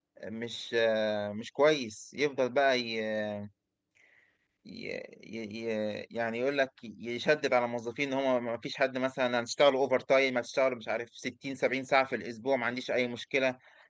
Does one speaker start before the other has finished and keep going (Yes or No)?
No